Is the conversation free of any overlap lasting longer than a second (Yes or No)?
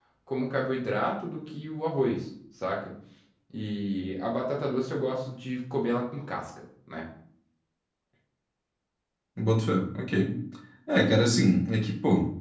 Yes